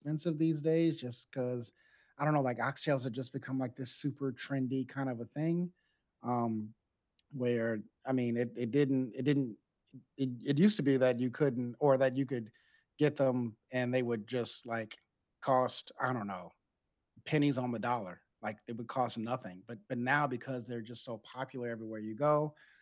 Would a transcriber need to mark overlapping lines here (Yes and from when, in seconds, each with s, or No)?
No